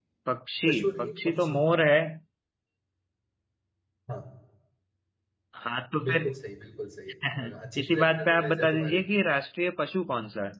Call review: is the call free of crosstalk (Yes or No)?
No